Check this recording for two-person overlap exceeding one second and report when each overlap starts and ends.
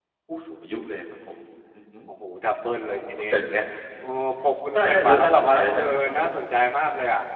4.7-6.3

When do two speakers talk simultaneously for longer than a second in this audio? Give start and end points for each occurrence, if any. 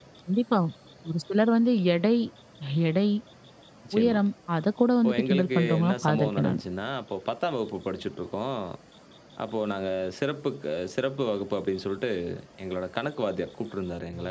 5.0-6.6

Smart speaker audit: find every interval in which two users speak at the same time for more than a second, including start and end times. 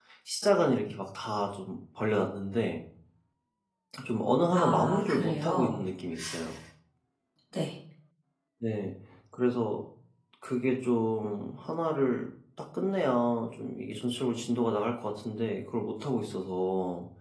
4.5-5.8

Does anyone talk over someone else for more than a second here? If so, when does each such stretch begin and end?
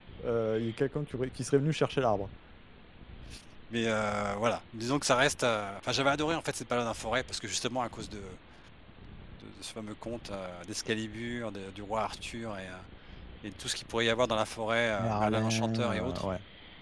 15.0-16.3

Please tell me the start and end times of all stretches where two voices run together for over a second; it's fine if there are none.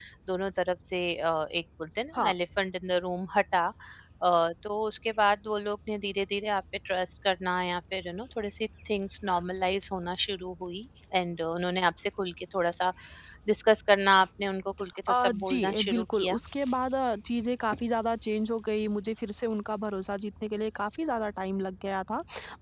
15.1-16.4

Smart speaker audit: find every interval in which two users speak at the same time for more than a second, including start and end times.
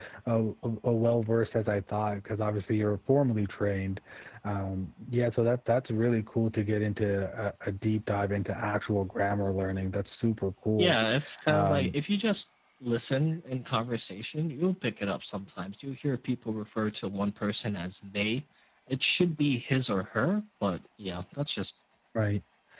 none

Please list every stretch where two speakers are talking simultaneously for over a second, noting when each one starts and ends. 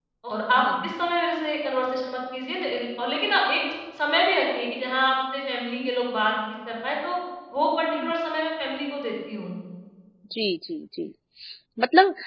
none

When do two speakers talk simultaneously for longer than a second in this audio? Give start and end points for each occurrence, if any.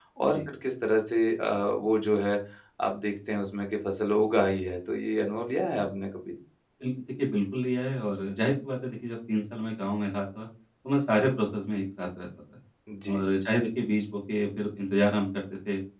none

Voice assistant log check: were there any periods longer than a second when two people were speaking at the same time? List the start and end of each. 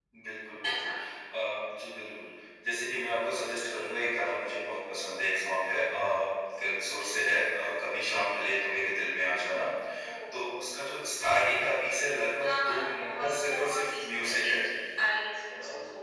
12.4-14.6

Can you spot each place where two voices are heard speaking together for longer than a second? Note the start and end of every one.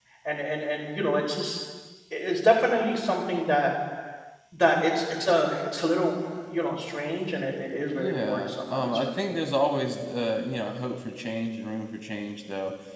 8.0-9.4

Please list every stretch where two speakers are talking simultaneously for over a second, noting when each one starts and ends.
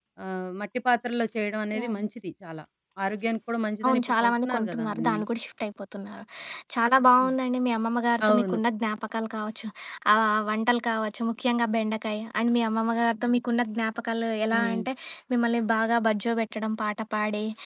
3.9-5.2

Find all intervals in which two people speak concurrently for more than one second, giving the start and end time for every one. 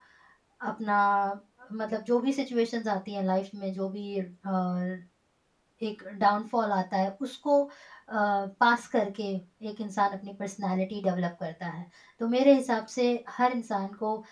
none

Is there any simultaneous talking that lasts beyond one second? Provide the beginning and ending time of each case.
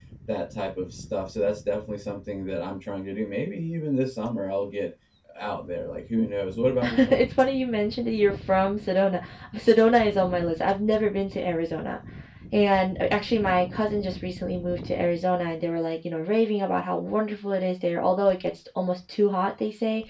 none

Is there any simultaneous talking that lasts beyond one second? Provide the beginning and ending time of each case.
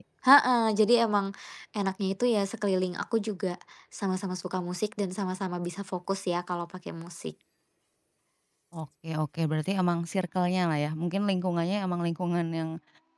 none

